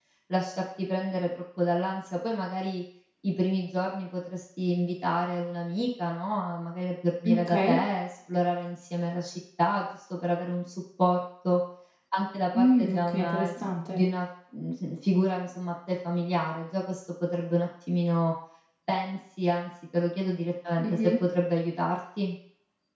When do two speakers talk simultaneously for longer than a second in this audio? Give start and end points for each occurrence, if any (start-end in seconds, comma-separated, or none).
12.5-14.0